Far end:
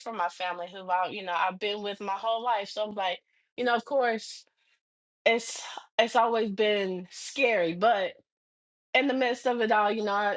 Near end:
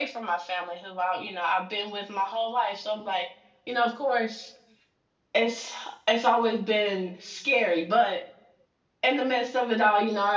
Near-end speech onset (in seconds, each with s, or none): none